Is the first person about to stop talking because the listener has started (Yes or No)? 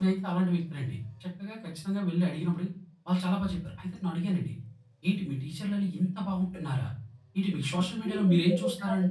Yes